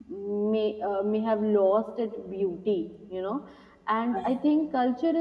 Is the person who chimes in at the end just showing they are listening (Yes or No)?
Yes